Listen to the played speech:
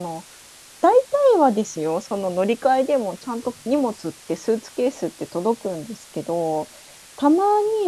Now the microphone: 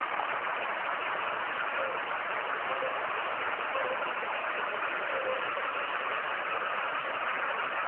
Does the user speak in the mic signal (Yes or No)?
No